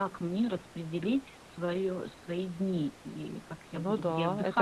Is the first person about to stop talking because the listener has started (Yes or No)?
Yes